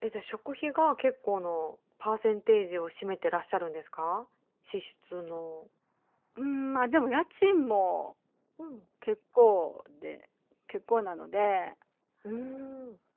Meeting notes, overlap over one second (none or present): none